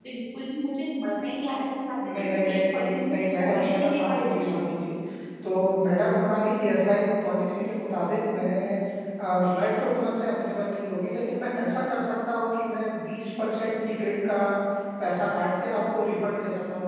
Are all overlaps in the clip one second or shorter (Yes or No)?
No